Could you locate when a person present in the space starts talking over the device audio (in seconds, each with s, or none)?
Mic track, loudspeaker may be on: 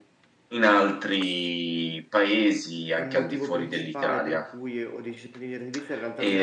2.9 s